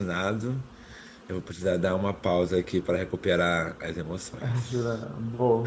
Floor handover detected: Yes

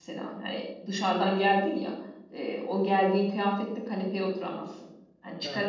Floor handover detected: No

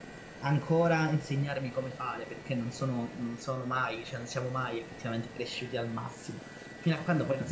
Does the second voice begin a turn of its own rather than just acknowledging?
No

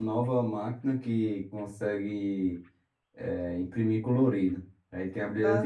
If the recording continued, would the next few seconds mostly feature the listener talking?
No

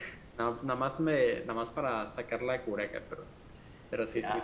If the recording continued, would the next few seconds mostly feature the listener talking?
Yes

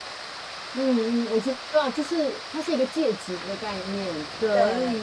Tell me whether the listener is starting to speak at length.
No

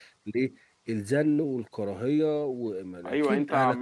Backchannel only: No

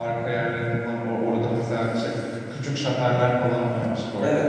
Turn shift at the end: Yes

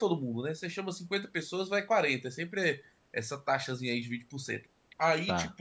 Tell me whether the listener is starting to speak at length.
No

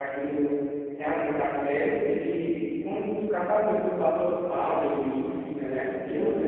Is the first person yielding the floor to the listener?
Yes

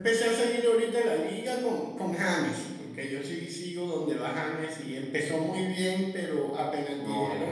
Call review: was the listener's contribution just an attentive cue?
Yes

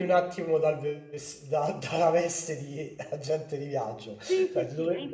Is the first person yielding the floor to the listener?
Yes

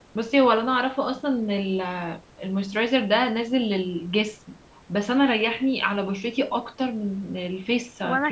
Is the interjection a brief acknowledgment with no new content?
No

